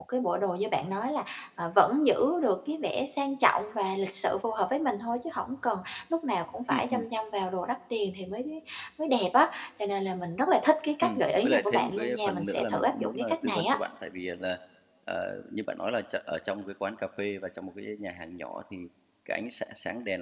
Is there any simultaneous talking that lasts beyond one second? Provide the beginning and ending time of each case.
11.0-13.8

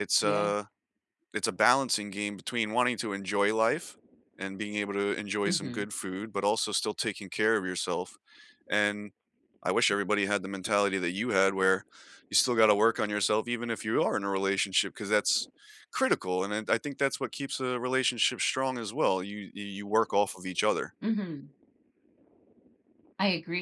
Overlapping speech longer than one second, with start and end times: none

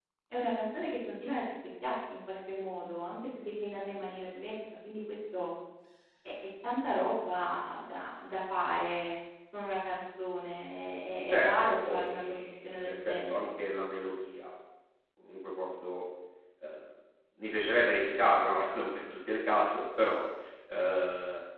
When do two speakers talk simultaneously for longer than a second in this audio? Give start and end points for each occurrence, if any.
11.3-13.5

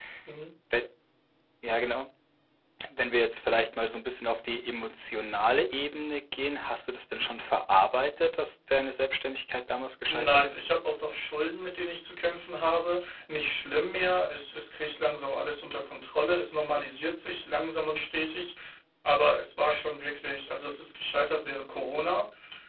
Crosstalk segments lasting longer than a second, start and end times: none

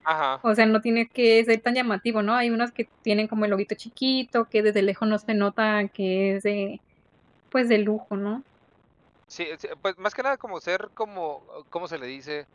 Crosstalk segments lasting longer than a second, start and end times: none

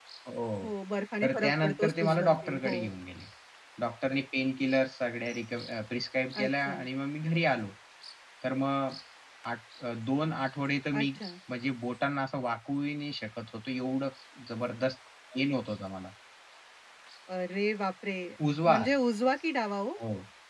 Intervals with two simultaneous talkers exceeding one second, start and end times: 1.2-2.9

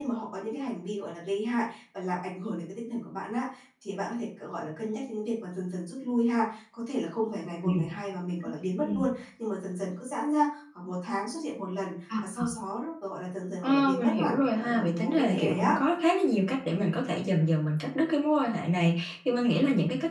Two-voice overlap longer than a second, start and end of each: 13.6-15.8

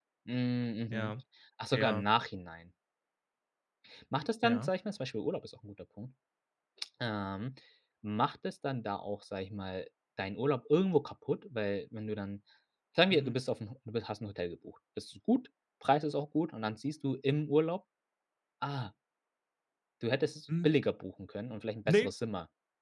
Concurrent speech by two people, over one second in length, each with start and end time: none

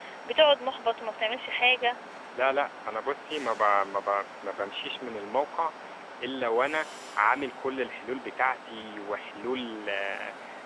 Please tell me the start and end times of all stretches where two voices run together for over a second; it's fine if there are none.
none

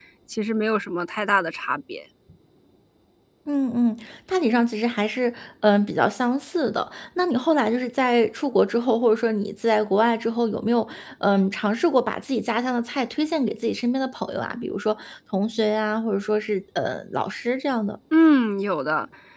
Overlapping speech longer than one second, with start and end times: none

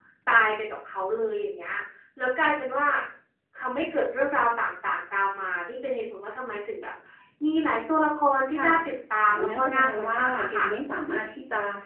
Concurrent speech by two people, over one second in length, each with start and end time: 9.2-10.7

